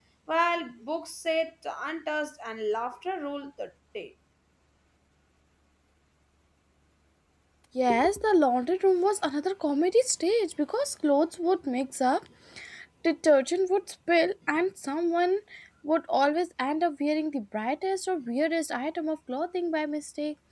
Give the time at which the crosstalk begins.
none

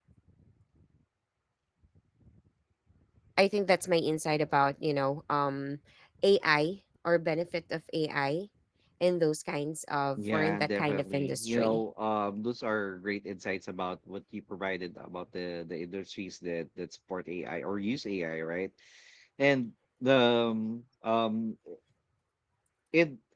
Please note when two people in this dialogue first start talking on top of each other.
10 s

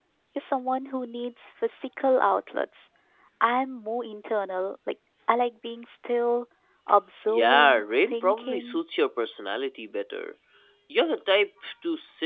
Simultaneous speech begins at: 7 s

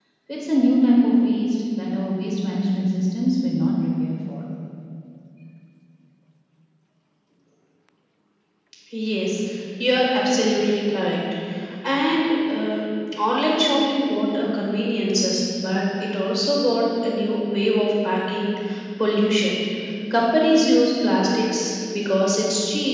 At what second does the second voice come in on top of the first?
none

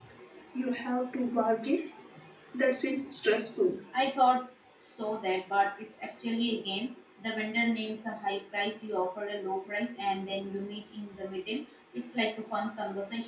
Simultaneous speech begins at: none

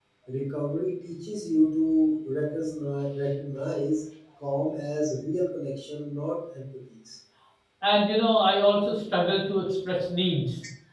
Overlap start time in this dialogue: none

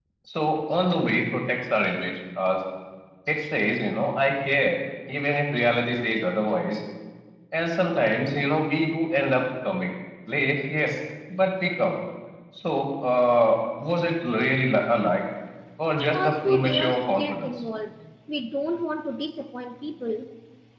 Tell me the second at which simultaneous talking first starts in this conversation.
16 s

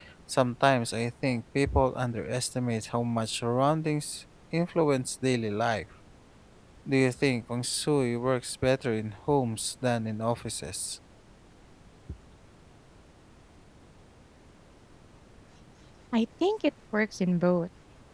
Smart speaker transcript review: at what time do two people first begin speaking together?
none

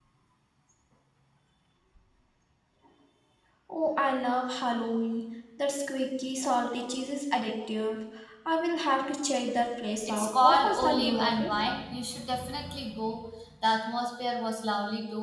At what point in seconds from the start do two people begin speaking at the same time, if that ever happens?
10 s

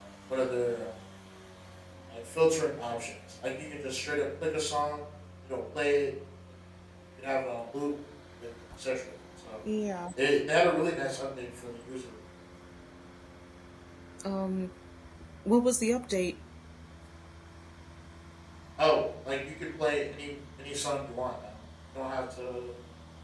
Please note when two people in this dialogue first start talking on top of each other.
none

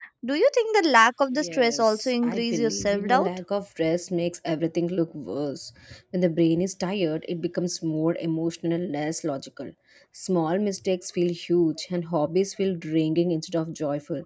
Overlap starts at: 1 s

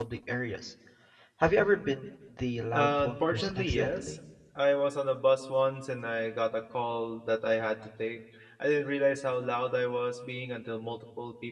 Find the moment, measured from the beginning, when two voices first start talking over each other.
3 s

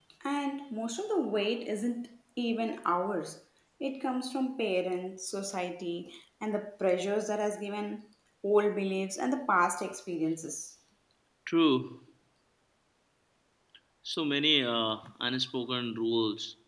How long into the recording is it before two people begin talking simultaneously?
none

